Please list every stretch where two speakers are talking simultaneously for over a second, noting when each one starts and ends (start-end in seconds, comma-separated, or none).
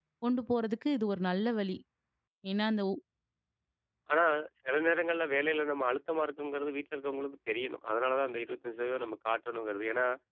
none